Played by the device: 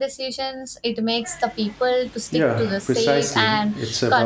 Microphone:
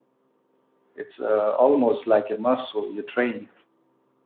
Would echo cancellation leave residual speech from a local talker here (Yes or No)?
Yes